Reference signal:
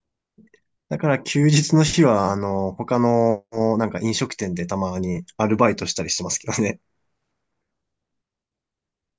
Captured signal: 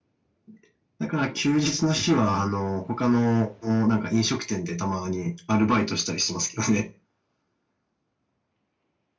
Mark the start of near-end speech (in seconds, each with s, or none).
none